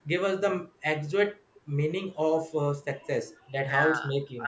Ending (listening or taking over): taking over